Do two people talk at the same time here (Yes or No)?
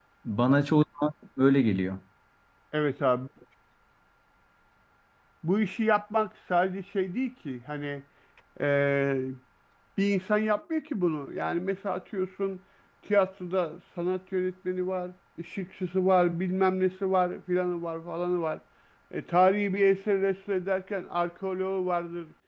No